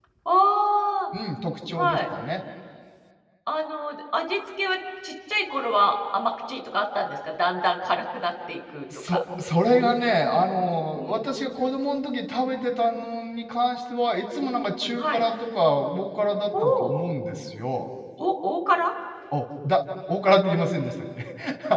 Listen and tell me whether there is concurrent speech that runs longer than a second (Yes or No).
No